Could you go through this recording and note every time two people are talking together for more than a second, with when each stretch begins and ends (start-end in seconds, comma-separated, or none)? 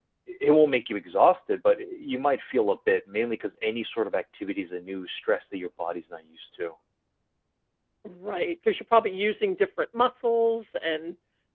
none